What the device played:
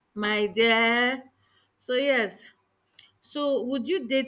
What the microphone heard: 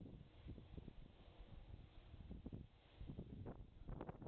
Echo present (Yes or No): No